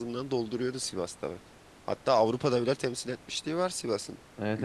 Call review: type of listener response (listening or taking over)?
taking over